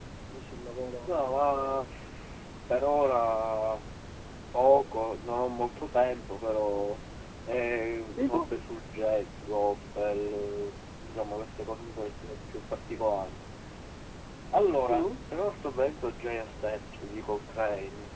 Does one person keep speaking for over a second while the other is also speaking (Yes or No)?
No